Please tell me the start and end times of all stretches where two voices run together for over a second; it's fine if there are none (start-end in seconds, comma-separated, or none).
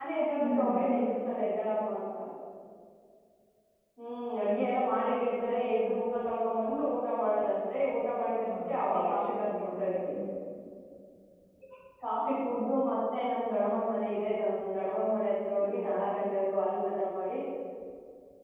8.5-9.9